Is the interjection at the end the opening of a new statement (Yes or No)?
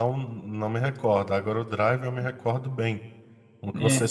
No